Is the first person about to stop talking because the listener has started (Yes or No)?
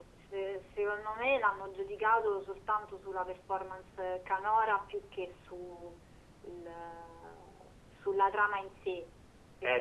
Yes